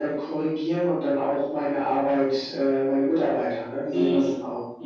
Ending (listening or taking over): taking over